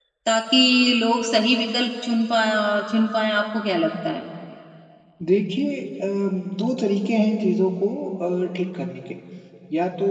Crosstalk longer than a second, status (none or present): none